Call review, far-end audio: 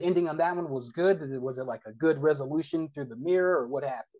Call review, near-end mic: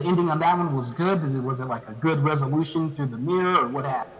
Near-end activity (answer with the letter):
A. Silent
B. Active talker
A